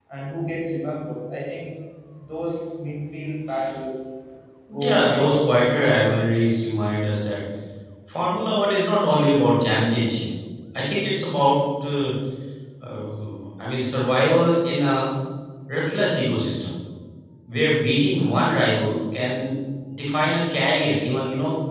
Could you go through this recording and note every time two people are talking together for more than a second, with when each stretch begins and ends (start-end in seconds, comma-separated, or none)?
4.7-6.2